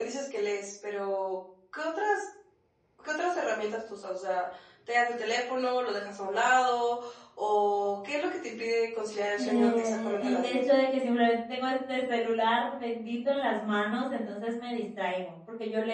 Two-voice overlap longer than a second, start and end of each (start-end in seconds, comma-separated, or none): 9.4-10.6